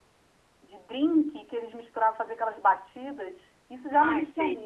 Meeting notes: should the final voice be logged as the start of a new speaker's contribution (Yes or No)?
No